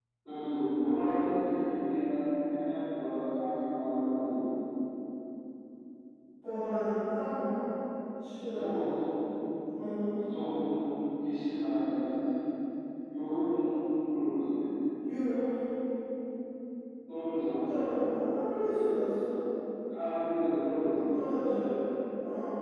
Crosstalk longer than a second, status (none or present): none